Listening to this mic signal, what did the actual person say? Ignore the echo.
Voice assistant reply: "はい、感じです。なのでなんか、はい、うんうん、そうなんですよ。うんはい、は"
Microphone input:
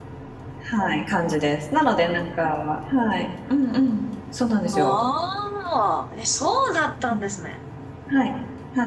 ああ、え、そうだったんですね。

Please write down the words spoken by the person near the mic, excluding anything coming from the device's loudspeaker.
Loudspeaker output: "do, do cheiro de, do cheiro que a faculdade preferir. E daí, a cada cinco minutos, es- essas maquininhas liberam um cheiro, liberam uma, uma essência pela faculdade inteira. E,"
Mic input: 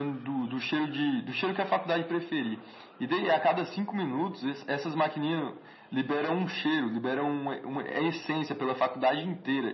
none

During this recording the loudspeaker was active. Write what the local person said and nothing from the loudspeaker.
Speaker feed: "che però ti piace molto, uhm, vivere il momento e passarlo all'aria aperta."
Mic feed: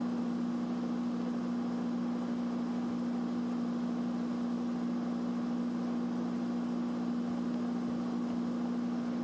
none

